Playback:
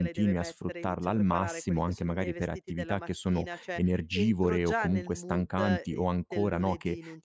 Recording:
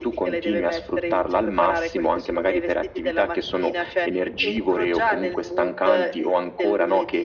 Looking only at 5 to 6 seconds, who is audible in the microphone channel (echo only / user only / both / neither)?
echo only